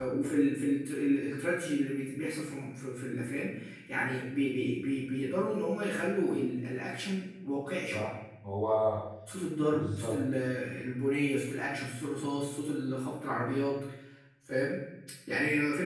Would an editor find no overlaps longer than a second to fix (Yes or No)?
Yes